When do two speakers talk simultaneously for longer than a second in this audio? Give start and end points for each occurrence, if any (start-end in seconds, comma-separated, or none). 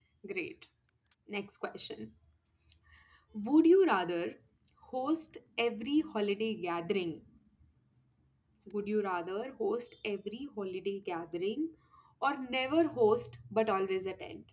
none